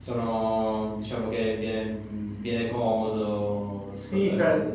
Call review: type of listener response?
taking over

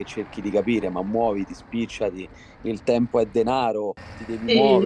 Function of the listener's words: listening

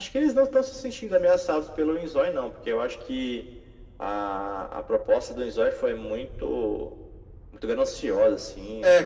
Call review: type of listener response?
taking over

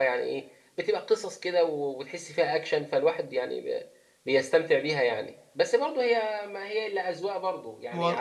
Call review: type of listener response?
taking over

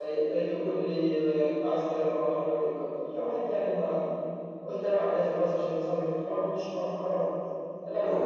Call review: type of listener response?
listening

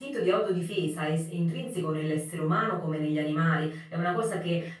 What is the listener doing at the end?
listening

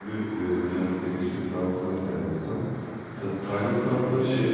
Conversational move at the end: listening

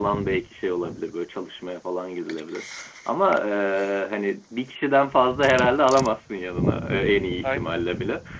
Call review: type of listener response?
listening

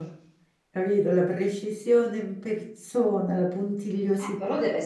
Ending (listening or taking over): taking over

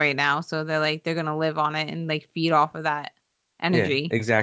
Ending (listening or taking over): taking over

